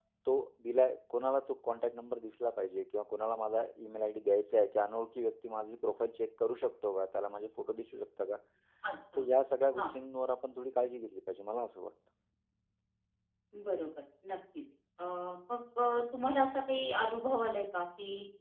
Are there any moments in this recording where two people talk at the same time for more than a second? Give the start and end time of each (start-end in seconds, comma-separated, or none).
none